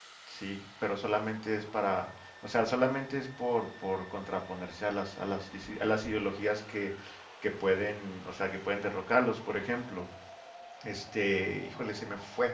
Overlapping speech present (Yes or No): No